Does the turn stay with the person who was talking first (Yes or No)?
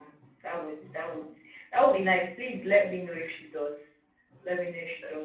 Yes